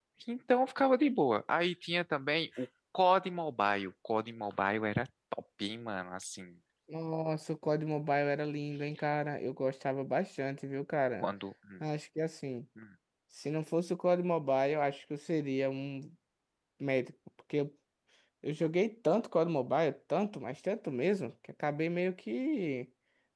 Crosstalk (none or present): none